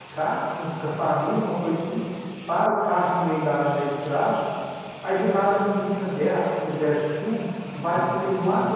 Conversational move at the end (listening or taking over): listening